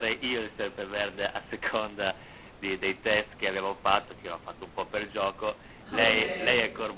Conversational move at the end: listening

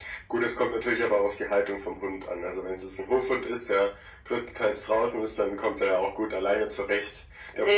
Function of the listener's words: taking over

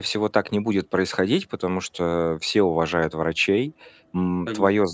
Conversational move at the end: listening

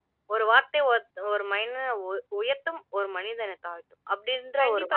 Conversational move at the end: taking over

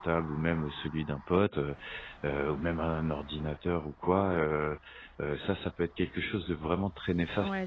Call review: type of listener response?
taking over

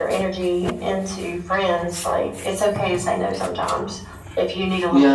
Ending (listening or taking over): taking over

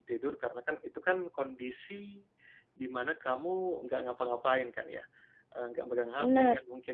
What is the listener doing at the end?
listening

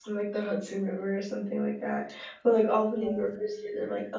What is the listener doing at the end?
listening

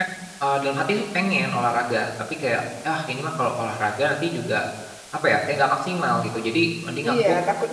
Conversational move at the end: taking over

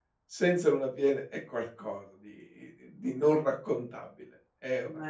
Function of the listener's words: listening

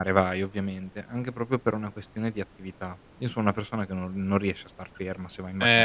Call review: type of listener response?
taking over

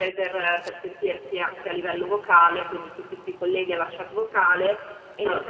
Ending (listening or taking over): listening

